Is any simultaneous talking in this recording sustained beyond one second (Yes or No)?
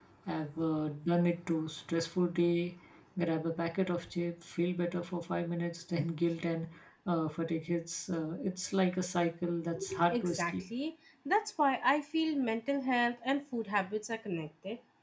No